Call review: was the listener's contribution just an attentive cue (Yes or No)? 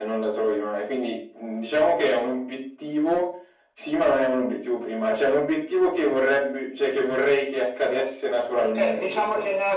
No